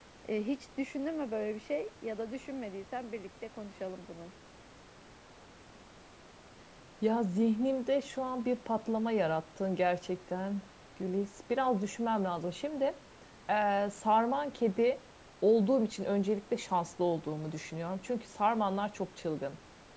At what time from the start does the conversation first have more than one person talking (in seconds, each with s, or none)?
none